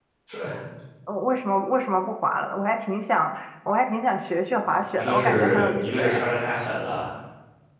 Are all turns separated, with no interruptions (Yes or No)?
No